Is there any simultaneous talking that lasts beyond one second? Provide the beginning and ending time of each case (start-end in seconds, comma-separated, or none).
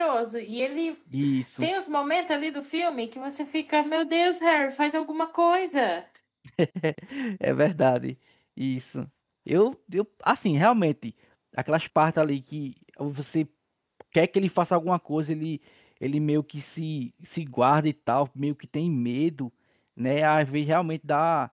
none